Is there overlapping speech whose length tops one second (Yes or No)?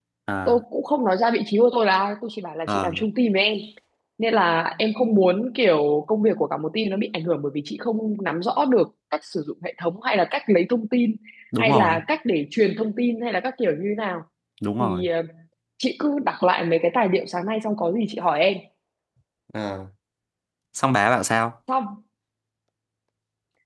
No